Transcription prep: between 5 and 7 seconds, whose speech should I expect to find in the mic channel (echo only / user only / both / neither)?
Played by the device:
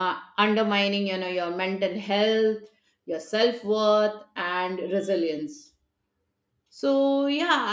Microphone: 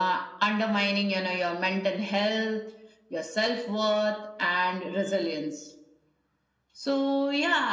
echo only